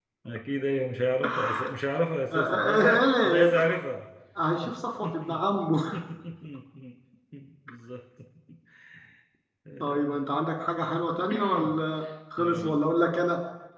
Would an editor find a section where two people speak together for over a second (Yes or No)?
Yes